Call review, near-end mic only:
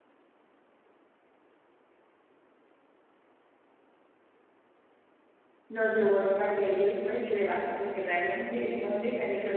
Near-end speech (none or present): present